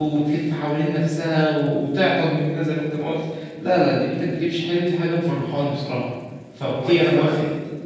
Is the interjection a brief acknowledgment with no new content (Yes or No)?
No